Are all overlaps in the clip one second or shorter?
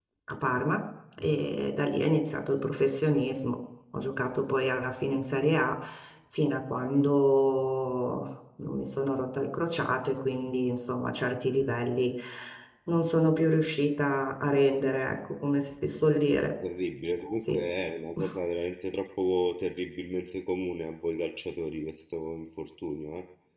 Yes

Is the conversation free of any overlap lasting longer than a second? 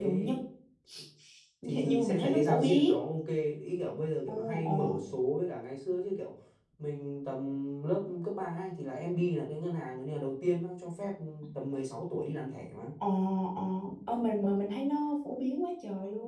No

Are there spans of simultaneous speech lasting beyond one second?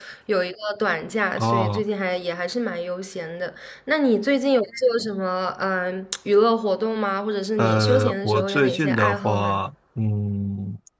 Yes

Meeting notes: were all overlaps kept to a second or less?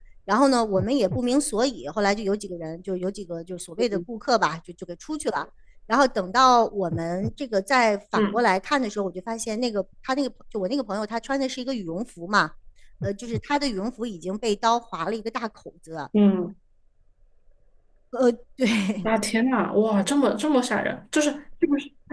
Yes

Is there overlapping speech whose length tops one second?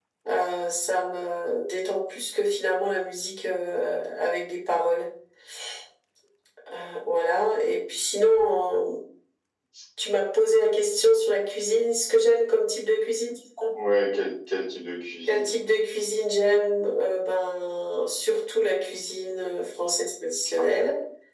No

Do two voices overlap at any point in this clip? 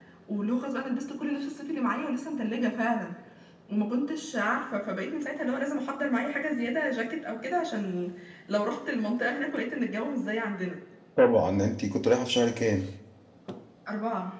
No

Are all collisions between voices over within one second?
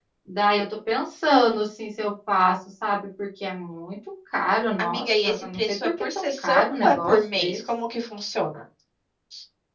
No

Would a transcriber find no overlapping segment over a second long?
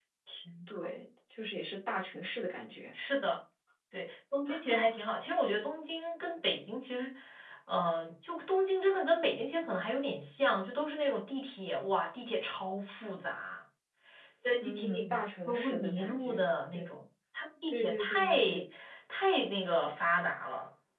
No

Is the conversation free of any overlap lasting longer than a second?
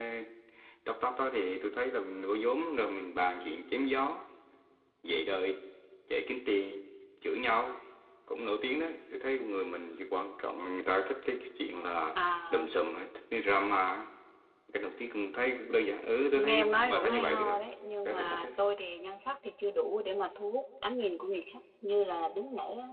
No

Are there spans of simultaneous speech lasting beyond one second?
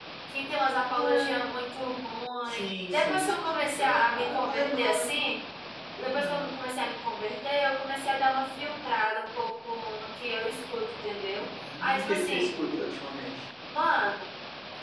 Yes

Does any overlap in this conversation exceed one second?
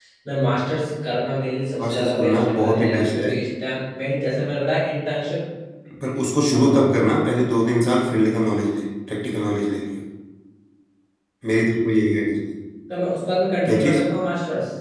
Yes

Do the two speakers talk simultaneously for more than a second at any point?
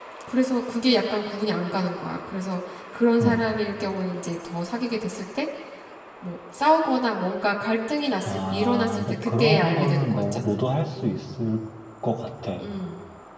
Yes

